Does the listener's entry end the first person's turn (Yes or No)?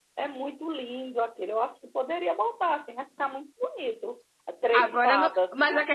Yes